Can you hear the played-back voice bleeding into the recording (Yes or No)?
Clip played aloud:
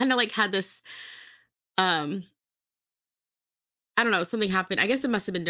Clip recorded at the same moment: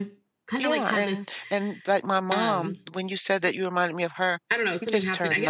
Yes